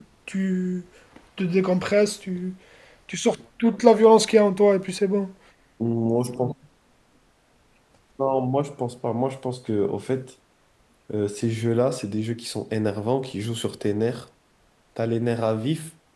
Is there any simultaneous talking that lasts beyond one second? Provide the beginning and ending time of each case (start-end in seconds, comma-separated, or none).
none